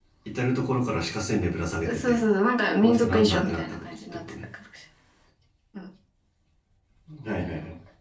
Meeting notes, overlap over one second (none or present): present